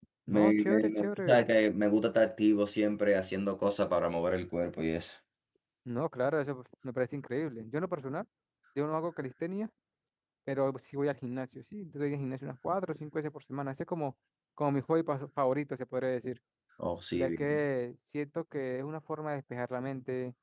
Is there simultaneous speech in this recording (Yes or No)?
Yes